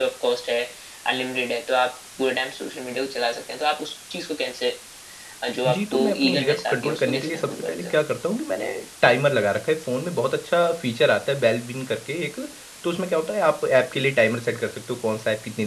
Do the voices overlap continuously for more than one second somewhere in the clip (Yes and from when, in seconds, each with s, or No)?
Yes, from 5.7 s